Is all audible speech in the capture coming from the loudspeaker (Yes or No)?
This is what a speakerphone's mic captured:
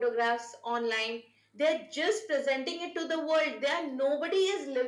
Yes